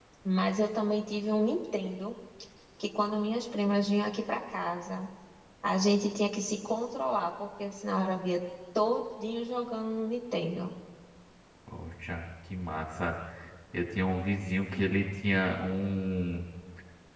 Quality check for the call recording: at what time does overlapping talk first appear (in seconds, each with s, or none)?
none